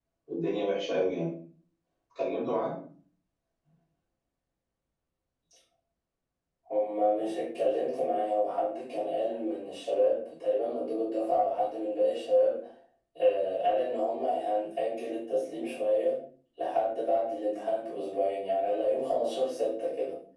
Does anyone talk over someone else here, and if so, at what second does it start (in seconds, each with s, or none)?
none